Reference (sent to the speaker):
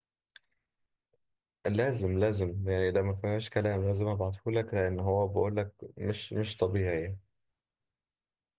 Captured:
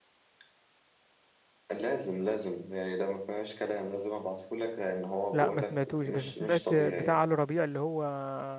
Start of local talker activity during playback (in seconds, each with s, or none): 5.3 s